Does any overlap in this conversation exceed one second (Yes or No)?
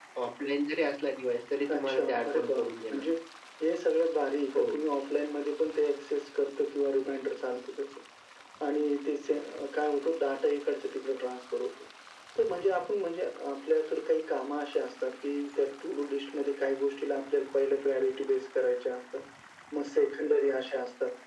Yes